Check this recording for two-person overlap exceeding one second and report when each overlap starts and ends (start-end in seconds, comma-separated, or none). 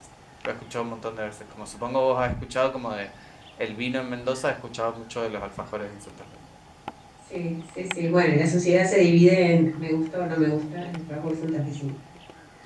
none